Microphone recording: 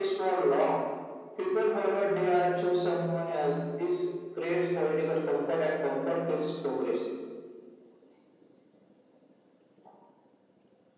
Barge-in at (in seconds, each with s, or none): none